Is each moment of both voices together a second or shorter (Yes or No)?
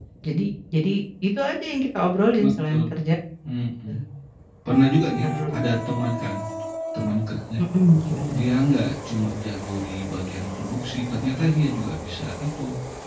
Yes